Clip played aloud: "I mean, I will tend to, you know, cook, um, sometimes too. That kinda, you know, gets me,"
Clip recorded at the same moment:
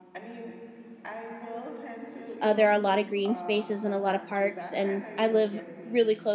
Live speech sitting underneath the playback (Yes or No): No